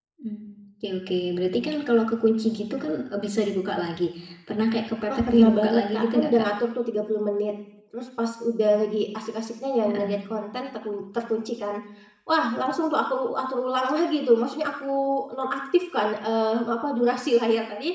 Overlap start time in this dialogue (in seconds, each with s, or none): 5.1 s